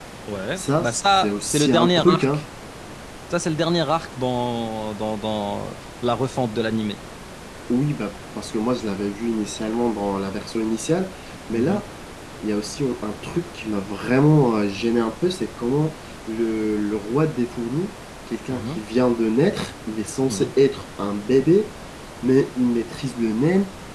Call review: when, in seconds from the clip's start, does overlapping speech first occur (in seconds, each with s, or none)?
0.6 s